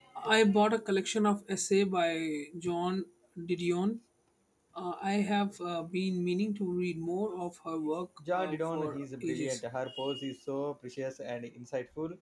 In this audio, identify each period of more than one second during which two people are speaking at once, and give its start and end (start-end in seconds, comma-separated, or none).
8.3-9.6